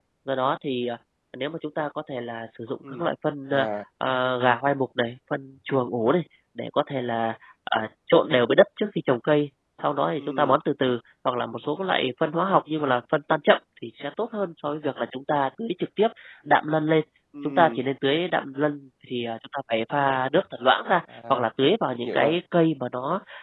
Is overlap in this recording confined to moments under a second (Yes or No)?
Yes